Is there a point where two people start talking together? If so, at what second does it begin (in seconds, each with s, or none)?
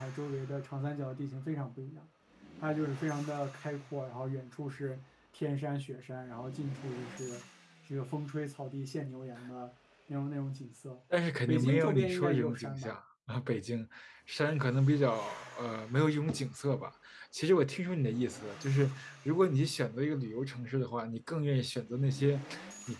11.5 s